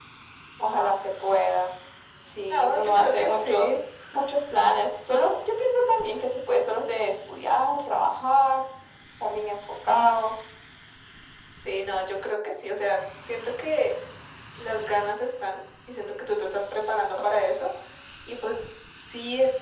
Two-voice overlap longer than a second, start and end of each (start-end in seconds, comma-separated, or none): 2.5-3.8